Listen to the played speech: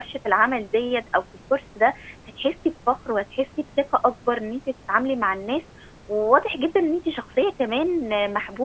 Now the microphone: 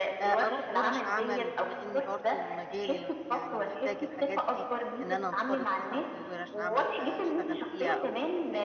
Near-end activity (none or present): present